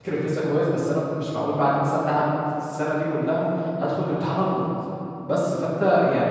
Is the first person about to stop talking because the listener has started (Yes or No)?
No